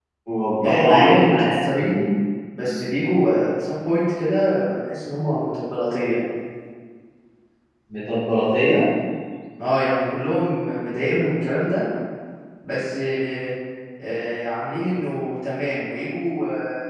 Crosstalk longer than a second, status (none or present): present